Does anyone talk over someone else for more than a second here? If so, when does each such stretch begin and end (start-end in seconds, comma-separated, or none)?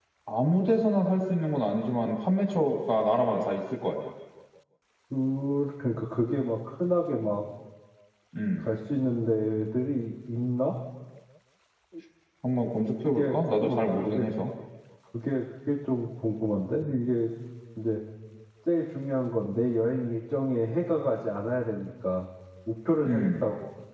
13.0-14.3